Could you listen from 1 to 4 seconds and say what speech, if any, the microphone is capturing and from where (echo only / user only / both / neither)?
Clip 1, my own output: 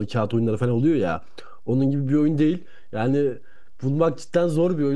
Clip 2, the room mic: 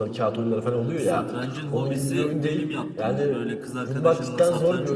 both